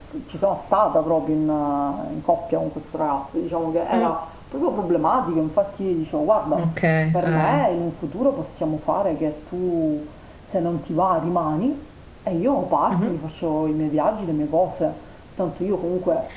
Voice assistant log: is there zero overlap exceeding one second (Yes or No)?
Yes